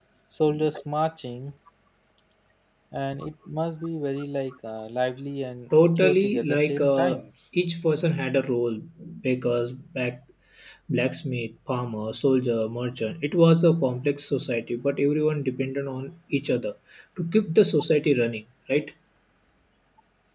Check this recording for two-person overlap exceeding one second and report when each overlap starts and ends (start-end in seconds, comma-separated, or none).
6.0-7.2